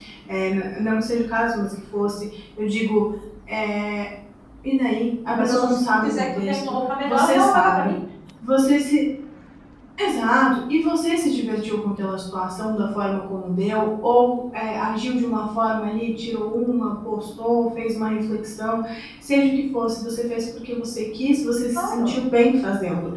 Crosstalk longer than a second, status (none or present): present